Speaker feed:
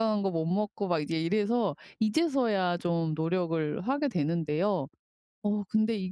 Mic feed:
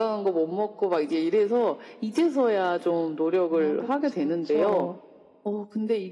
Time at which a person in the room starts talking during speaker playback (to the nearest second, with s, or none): 3 s